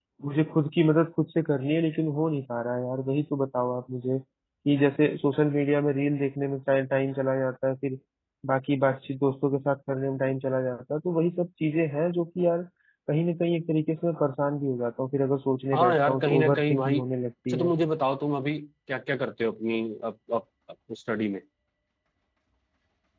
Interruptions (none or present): present